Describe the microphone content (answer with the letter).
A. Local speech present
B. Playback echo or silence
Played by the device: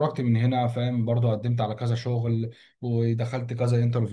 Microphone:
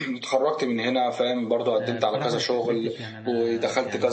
A